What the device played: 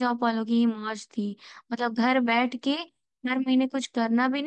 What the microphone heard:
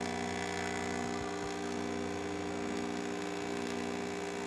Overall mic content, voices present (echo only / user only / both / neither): neither